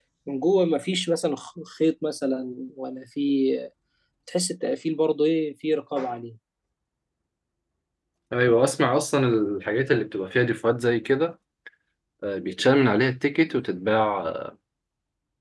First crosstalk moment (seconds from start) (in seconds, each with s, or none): none